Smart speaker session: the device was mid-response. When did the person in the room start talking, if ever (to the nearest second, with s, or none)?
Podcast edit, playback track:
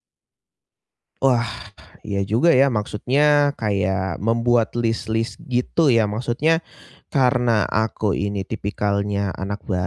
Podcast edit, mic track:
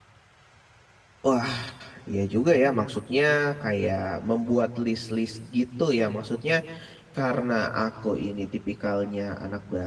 none